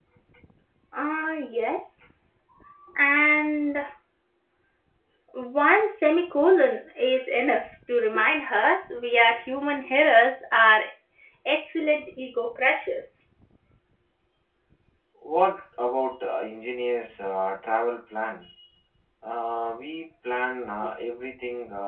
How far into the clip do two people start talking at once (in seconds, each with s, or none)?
none